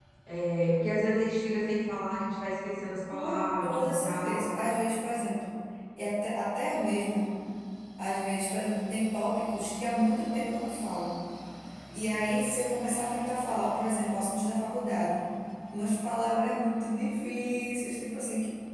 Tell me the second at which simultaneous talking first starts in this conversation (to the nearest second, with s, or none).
3 s